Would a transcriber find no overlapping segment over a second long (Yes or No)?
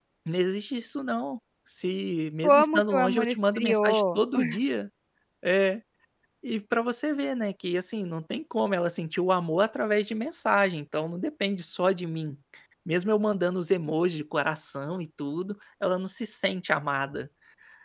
No